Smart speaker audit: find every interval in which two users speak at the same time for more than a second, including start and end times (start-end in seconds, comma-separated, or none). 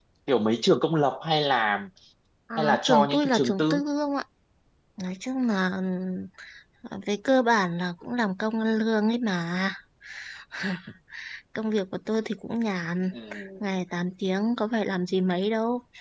2.6-3.8